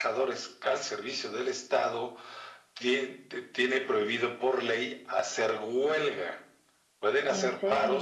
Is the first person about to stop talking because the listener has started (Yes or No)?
No